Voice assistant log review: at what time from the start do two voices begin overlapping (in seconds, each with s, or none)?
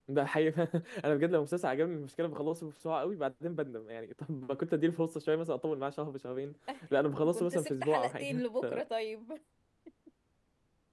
7.3 s